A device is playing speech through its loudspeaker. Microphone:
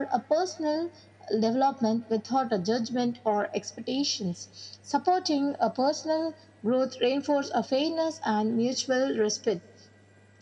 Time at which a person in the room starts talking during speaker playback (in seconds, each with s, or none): none